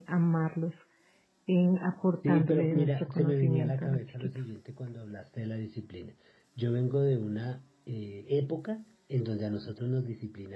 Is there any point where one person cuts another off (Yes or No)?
Yes